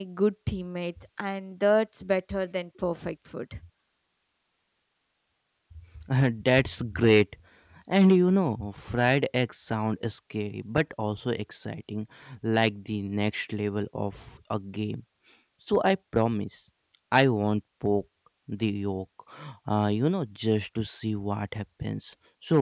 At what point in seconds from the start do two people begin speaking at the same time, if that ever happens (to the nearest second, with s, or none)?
none